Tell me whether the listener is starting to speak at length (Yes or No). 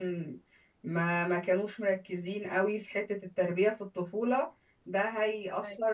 No